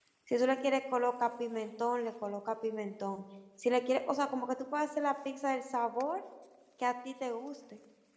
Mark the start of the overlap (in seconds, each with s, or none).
none